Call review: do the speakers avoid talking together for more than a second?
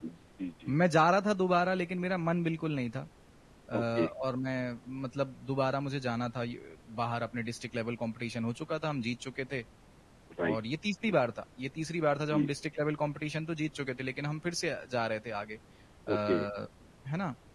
Yes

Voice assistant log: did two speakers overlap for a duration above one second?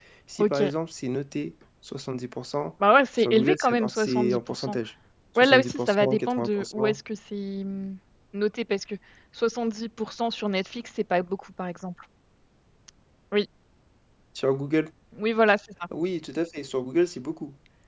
Yes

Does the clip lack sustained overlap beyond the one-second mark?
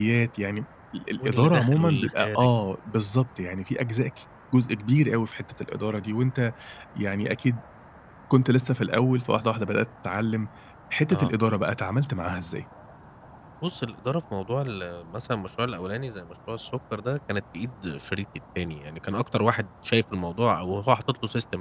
No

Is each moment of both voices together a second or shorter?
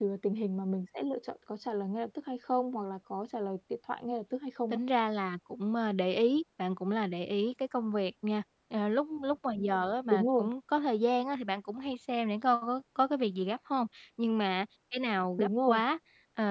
Yes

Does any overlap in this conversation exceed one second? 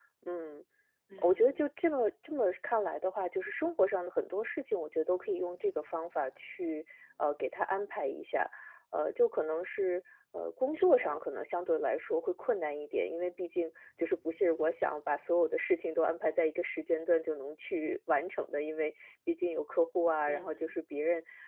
No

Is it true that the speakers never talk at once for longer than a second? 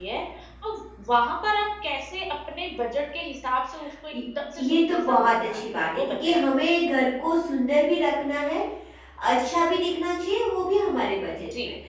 No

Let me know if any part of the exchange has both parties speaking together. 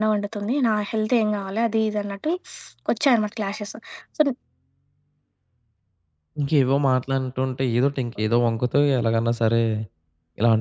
No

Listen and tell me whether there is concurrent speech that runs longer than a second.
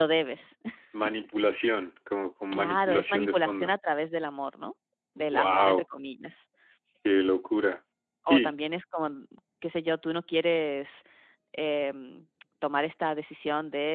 Yes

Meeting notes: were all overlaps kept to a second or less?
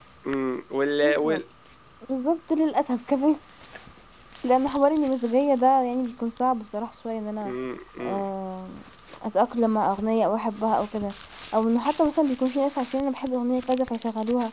Yes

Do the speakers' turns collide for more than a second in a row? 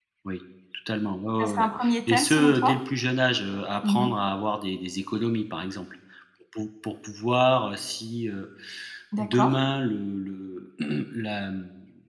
Yes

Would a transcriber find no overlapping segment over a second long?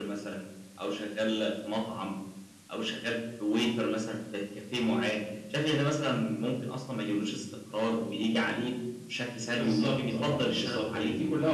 No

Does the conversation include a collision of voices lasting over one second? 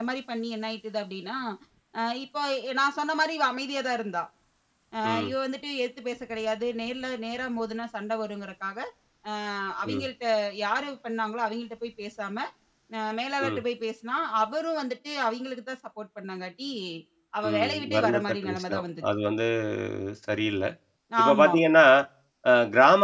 Yes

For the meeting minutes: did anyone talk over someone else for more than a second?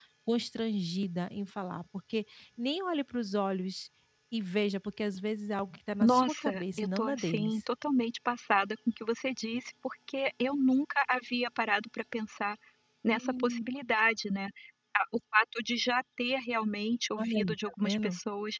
Yes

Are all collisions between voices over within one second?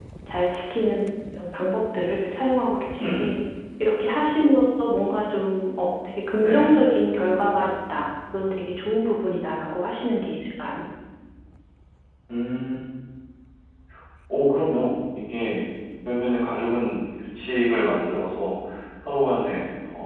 Yes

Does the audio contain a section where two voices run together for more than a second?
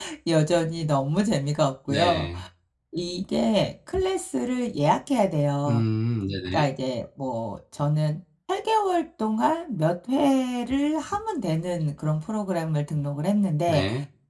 No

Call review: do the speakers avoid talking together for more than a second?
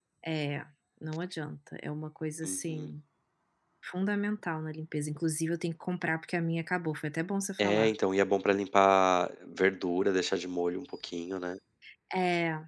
Yes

